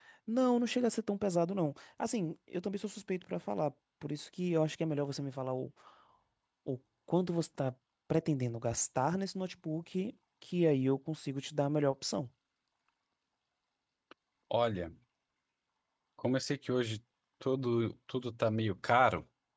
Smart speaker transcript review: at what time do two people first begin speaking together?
none

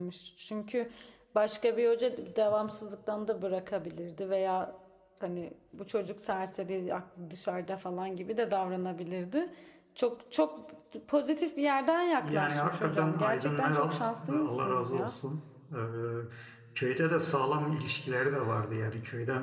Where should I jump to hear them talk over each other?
12.2 s

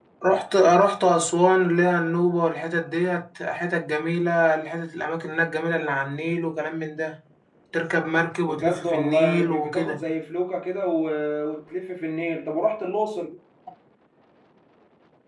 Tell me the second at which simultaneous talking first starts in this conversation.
8.5 s

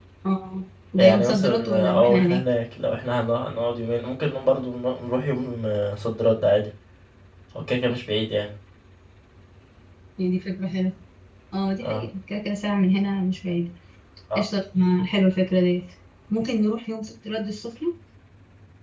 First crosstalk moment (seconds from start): 1.0 s

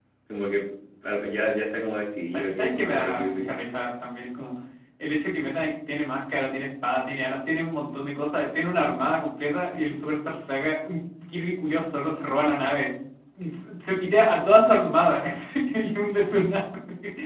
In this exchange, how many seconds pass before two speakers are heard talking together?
2.3 s

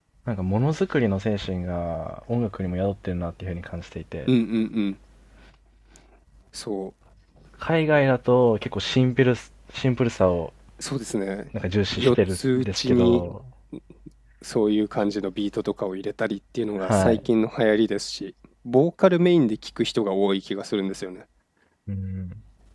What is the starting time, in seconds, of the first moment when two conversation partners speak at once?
12.0 s

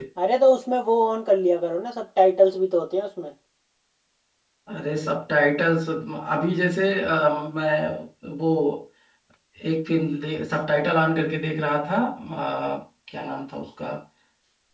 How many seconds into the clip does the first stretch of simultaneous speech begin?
none

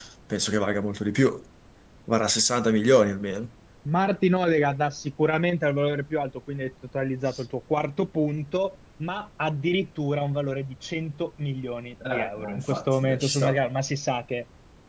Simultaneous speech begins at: 12.0 s

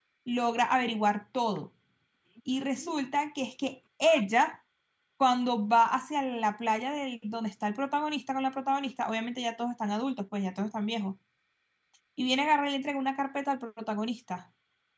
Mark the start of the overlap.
none

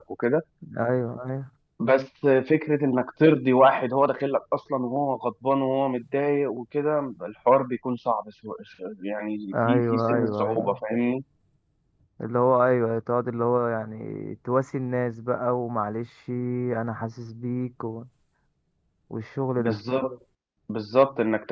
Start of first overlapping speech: 9.5 s

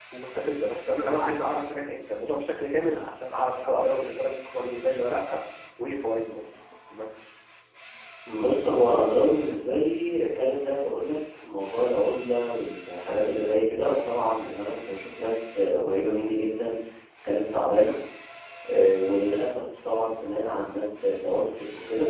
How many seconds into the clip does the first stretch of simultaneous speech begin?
none

